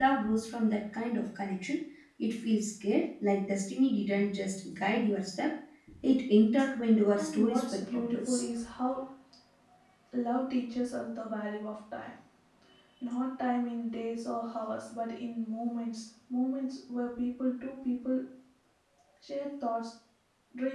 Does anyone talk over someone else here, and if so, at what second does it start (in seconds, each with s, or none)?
7.2 s